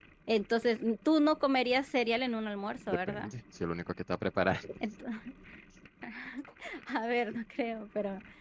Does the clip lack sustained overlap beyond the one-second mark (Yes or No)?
Yes